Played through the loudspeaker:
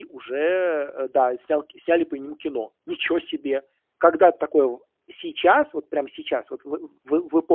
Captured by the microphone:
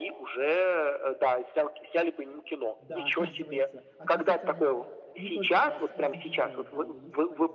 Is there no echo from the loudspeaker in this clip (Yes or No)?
No